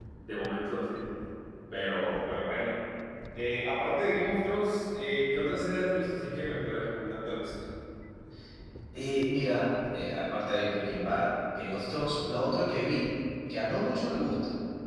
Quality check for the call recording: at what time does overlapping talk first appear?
none

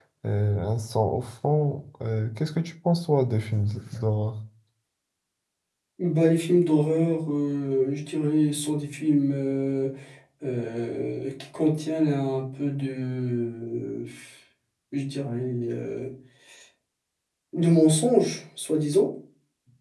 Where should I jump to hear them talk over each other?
none

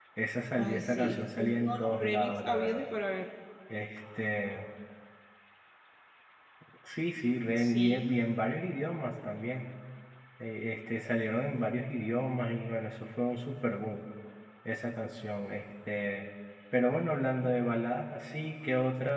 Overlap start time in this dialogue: 1 s

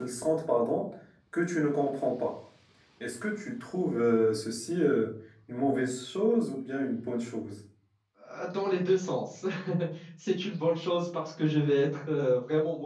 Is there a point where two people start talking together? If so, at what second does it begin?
none

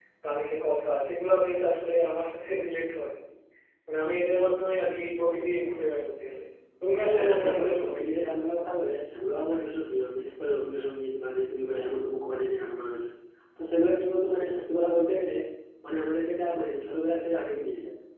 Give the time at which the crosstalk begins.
7 s

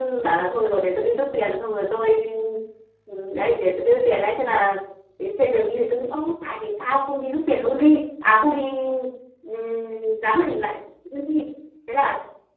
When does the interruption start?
none

